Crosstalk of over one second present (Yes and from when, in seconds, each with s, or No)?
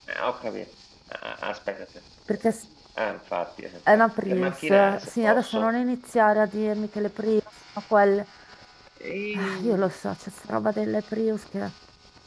Yes, from 3.9 s